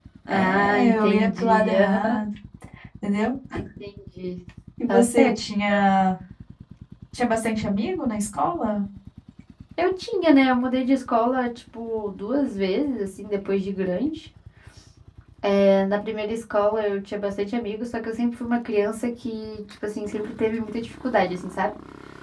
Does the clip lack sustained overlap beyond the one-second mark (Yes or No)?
No